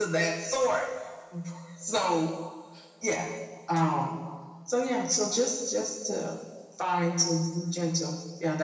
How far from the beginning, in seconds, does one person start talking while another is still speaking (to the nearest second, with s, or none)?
none